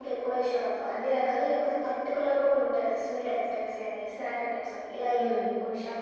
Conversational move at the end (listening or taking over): taking over